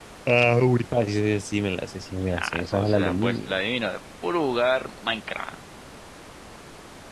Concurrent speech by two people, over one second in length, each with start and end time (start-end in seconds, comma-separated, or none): 2.3-3.5